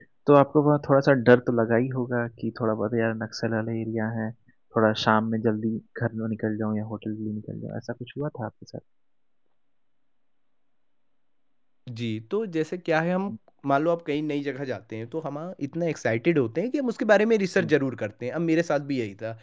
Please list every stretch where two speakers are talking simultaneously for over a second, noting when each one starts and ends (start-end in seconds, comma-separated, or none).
none